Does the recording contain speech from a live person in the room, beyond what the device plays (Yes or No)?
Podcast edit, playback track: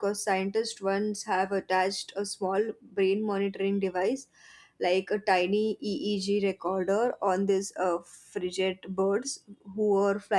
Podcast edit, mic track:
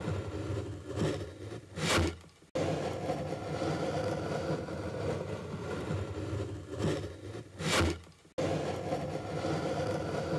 No